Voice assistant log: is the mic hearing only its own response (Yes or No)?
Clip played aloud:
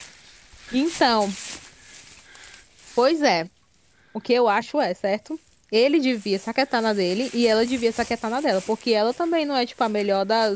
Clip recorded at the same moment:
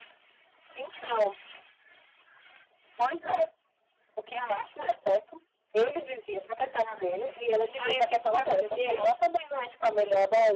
No